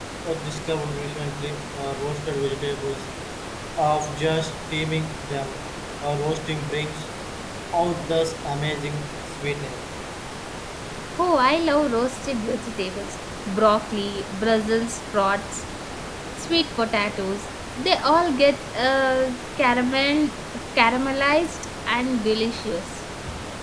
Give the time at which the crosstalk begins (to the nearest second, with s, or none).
none